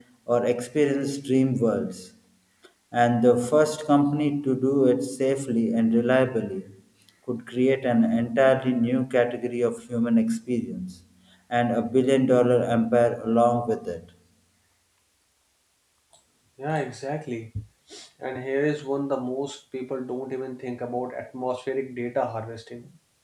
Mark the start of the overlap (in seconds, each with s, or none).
none